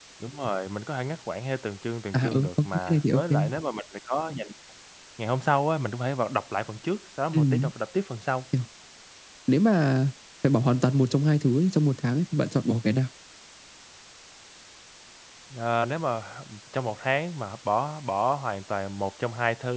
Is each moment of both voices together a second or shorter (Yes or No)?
No